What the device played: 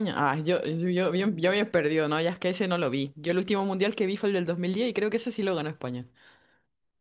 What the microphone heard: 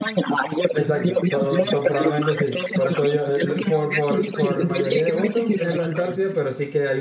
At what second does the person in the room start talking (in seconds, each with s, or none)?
0.7 s